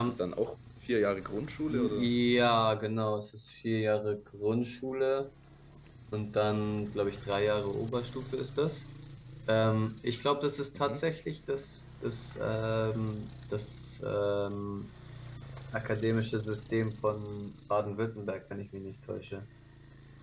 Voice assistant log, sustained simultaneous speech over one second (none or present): none